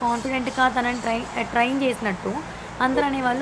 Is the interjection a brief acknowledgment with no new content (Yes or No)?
Yes